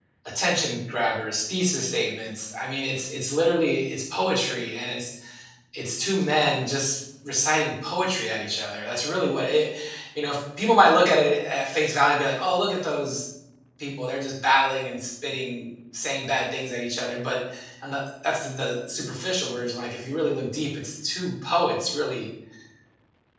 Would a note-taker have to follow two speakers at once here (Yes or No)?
No